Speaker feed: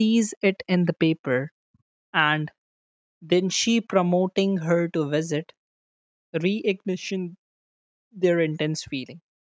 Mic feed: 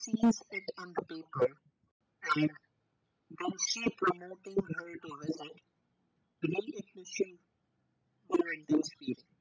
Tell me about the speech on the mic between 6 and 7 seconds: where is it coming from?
echo only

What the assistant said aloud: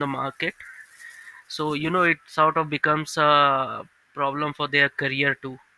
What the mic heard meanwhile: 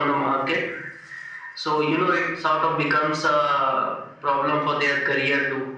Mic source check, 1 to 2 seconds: echo only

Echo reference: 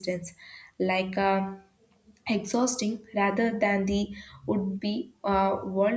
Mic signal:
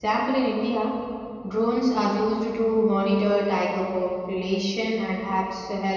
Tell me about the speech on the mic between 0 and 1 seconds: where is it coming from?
user only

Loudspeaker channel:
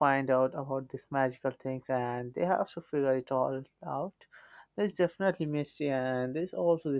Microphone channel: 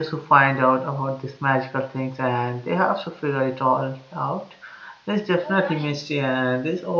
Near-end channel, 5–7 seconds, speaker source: both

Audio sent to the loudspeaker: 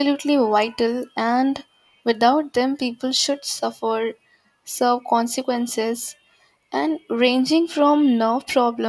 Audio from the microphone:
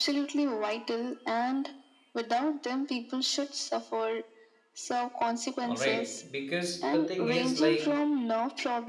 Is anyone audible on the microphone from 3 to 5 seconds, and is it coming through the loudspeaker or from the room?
echo only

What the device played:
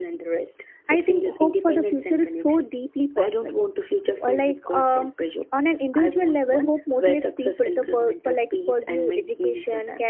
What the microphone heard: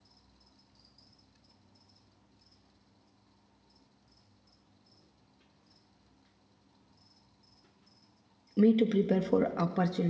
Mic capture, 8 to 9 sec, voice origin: user only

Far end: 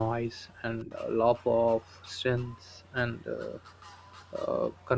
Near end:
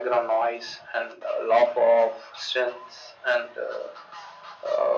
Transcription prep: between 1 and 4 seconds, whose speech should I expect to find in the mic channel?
echo only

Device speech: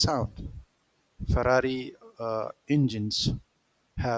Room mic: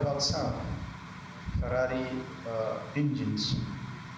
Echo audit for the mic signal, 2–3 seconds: echo only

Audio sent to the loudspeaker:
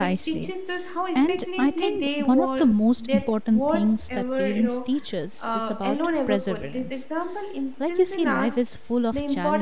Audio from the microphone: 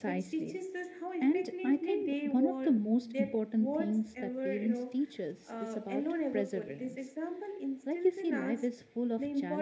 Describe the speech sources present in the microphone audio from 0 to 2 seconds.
echo only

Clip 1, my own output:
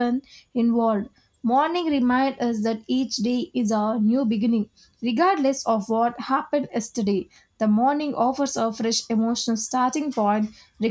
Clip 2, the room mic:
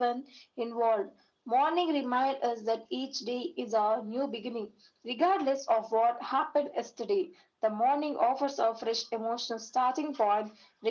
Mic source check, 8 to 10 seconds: echo only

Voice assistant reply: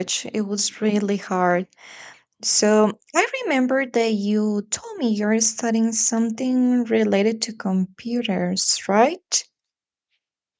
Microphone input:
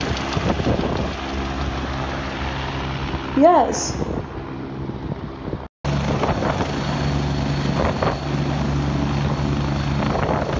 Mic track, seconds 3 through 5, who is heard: user only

